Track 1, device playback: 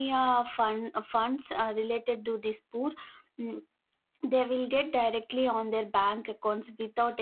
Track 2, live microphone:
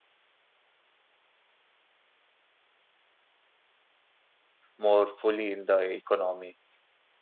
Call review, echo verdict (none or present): none